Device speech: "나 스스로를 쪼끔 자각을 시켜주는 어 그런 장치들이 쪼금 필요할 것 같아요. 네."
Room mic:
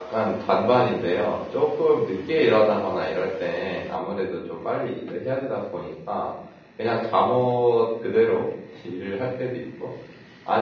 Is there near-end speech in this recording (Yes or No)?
Yes